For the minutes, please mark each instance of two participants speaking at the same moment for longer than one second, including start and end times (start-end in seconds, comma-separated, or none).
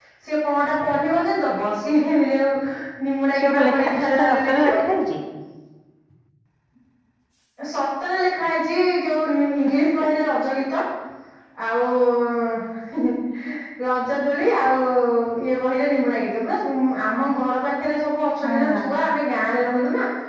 3.4-4.8